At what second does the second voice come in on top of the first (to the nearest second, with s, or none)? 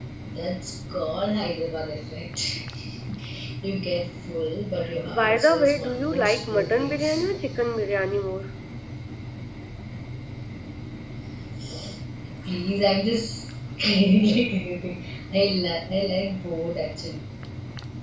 5 s